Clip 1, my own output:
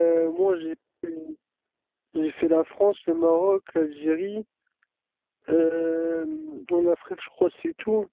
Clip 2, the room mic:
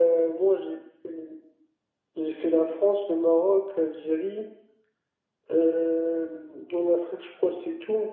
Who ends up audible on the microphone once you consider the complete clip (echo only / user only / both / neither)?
echo only